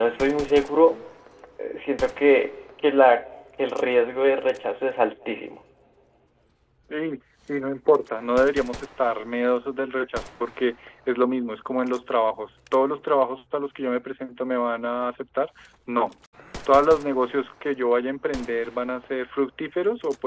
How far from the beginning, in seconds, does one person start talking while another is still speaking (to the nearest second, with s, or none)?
none